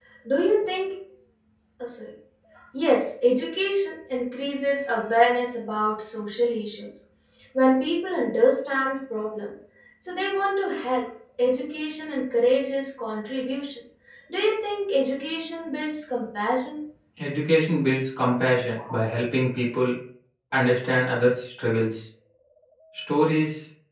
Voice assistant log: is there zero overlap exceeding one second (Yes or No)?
Yes